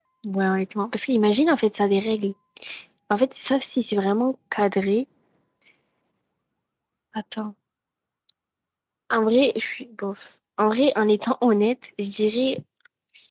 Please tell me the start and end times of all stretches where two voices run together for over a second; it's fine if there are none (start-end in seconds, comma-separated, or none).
none